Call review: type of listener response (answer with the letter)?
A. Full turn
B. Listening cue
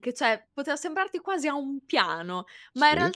B